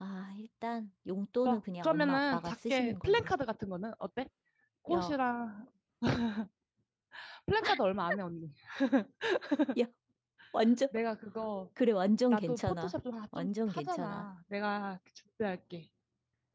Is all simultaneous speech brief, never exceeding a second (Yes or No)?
No